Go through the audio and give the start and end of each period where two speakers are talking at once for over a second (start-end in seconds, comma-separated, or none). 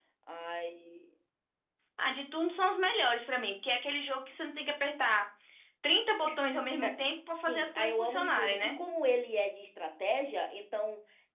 7.5-8.8